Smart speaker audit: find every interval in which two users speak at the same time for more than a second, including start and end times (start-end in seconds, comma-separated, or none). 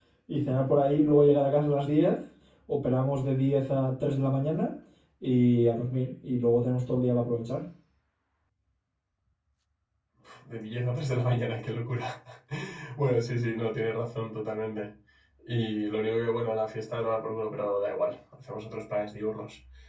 none